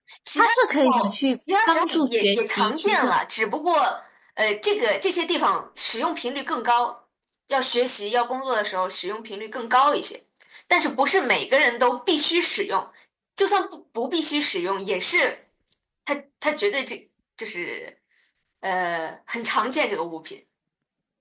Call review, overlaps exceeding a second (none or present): present